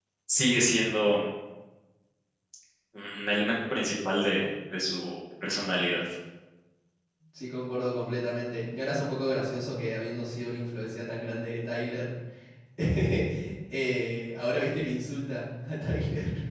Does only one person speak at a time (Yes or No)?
Yes